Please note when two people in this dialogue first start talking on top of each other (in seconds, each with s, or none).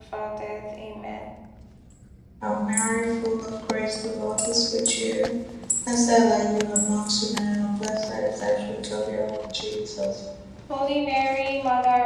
none